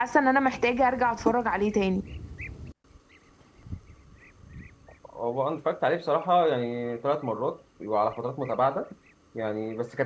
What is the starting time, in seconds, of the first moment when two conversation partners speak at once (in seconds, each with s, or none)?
none